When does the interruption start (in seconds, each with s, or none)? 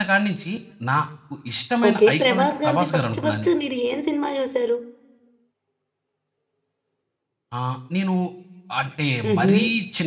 1.9 s